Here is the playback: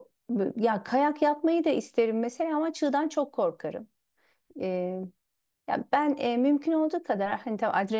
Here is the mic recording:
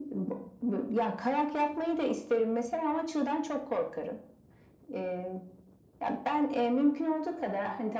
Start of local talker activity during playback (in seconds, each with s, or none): none